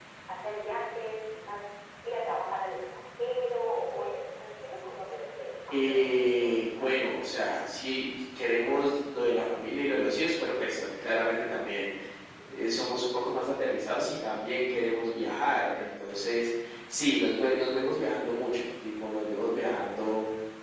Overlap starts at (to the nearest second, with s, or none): 6 s